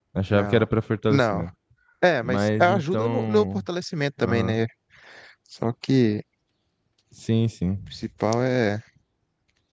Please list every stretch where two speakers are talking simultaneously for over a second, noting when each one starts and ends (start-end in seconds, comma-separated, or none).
2.2-3.6